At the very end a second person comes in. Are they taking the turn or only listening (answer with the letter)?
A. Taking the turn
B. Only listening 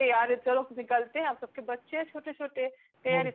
B